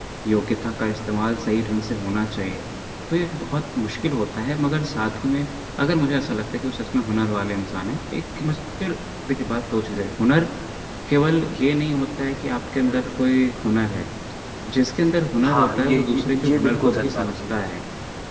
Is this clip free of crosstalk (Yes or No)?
No